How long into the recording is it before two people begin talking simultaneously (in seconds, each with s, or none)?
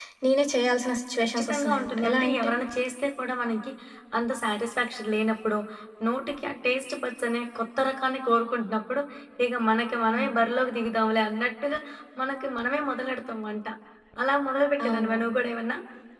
1.2 s